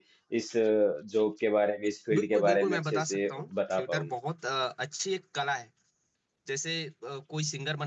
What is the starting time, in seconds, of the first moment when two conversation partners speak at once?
2.1 s

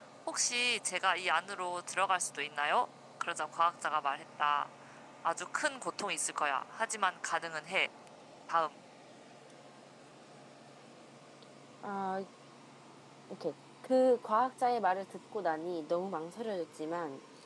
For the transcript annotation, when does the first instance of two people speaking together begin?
none

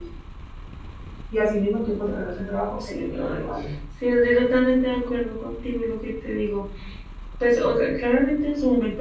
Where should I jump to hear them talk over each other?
2.0 s

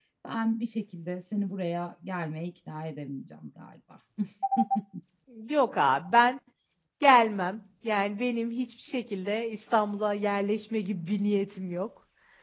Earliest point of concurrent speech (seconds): none

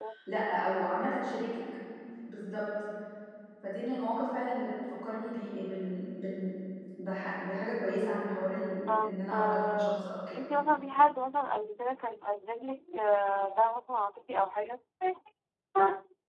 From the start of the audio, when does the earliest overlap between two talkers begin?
8.9 s

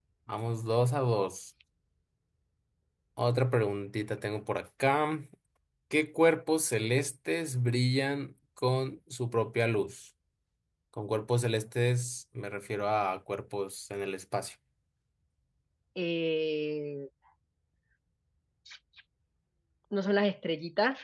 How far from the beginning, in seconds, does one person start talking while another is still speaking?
none

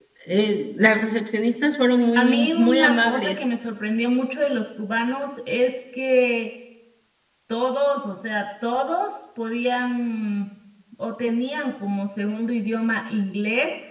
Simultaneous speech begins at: 2.1 s

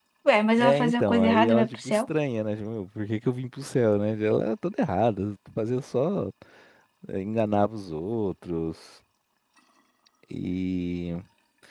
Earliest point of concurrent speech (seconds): 0.6 s

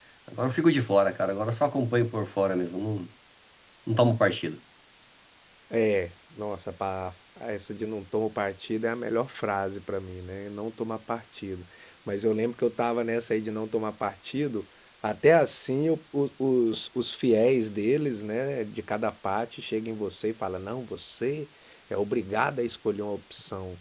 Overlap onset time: none

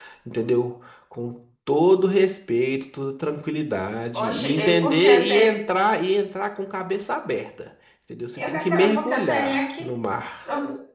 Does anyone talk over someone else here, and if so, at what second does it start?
4.1 s

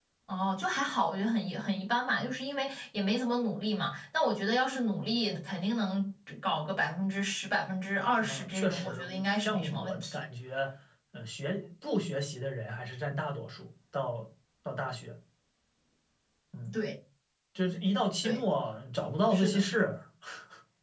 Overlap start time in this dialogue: 8.2 s

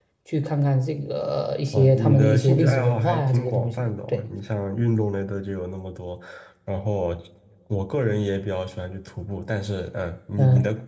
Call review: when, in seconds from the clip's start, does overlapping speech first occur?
1.7 s

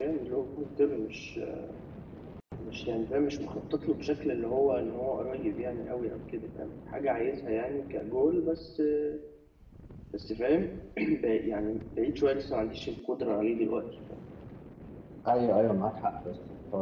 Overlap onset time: none

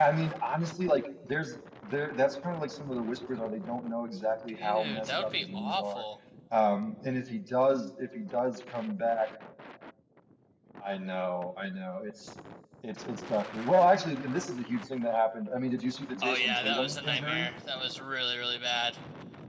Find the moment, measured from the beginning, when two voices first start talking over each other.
4.6 s

